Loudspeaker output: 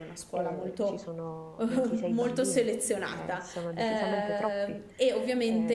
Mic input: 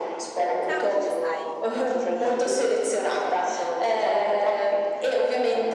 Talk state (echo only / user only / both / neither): both